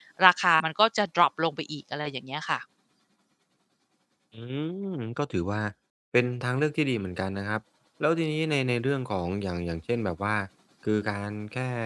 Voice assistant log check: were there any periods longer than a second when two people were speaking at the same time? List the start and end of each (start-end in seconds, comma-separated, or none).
none